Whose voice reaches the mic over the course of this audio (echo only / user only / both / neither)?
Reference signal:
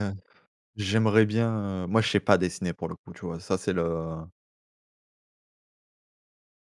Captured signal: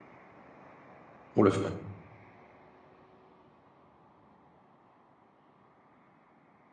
user only